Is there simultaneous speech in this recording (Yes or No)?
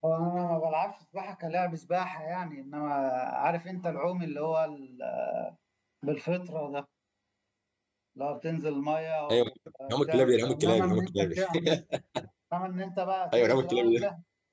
Yes